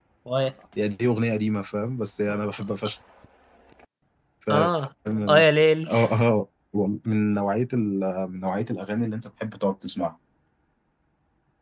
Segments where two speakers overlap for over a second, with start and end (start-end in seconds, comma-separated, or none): none